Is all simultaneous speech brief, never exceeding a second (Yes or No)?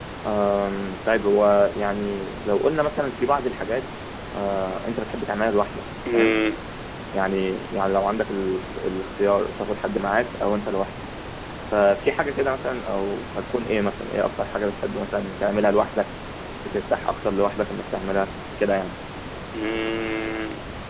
Yes